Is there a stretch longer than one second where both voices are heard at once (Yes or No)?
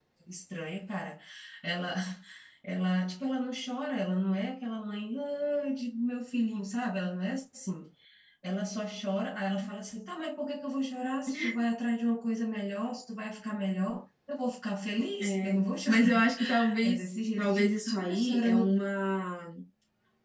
Yes